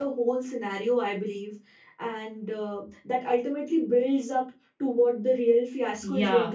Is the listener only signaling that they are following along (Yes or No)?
No